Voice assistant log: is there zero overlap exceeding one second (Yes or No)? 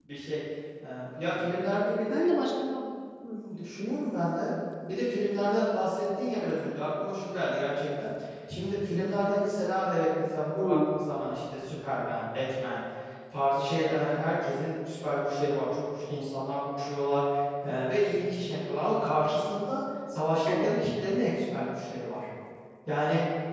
Yes